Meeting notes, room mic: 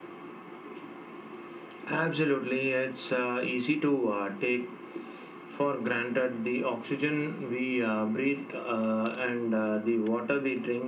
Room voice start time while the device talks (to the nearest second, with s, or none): none